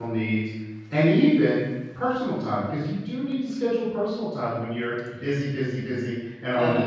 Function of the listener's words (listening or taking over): taking over